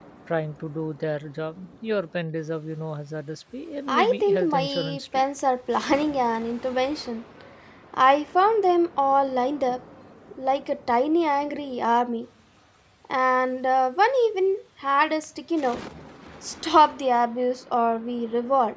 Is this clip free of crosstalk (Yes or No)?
No